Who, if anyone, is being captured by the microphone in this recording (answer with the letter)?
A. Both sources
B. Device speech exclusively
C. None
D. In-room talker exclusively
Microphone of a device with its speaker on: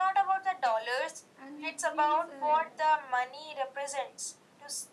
A